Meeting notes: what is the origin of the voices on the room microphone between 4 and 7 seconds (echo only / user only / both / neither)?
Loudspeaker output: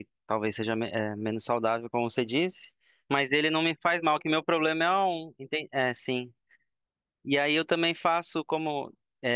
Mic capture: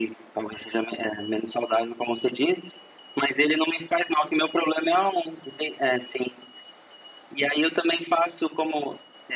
echo only